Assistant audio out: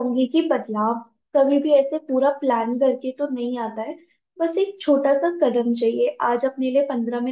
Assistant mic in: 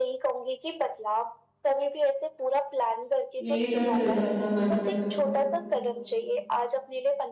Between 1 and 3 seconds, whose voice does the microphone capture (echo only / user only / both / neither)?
echo only